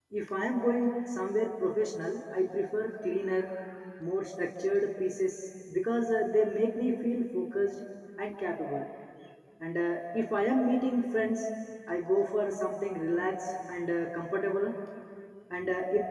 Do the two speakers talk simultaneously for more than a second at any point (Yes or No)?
No